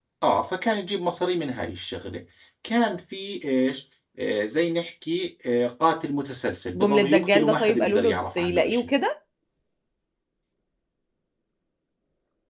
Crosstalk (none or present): present